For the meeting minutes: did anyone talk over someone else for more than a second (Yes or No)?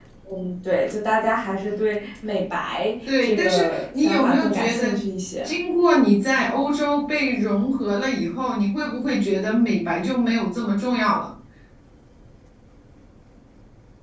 Yes